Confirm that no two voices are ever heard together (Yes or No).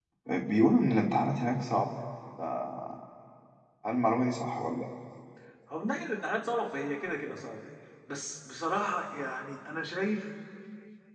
Yes